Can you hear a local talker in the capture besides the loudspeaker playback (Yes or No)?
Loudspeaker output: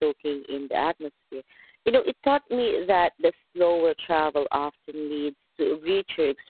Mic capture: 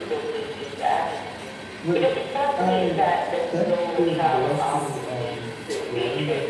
Yes